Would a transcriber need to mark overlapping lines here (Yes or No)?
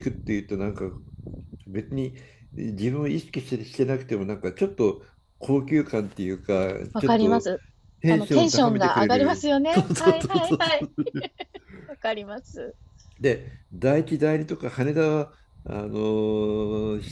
Yes